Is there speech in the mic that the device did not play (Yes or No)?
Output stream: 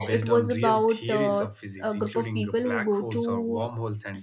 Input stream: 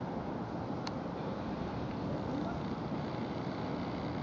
No